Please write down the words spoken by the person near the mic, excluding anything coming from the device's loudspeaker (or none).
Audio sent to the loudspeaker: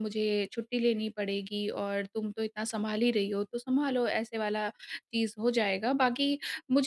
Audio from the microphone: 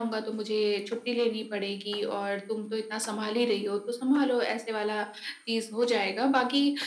none